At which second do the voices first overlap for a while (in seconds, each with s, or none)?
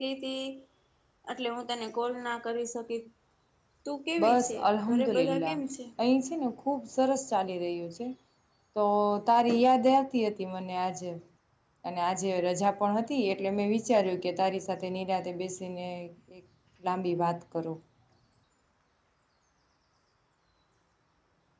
4.2 s